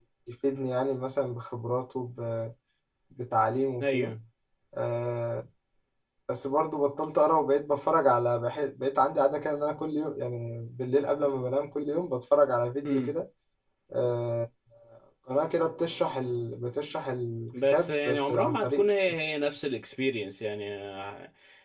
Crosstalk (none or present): present